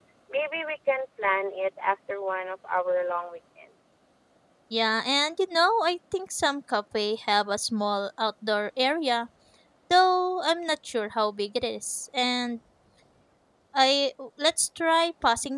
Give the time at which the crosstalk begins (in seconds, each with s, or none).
none